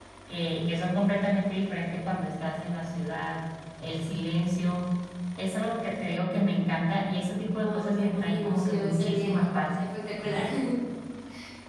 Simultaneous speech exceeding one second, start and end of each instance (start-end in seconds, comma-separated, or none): 7.6-9.6